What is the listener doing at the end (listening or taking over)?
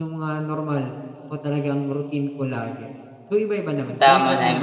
taking over